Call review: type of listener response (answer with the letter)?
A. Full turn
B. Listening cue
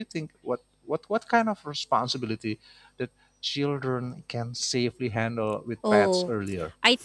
A